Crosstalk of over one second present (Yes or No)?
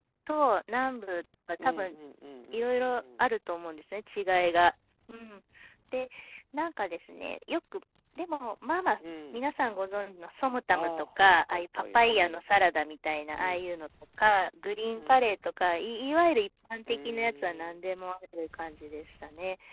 Yes